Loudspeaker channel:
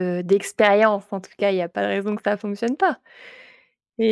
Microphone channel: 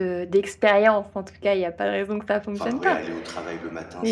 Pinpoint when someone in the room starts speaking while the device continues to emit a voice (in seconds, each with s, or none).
2.6 s